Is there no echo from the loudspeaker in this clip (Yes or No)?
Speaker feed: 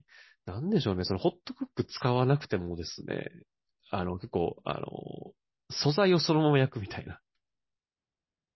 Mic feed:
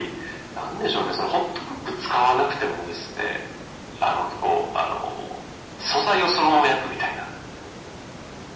No